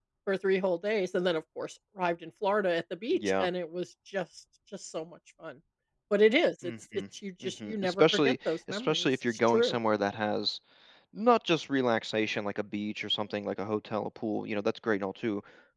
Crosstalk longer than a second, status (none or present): present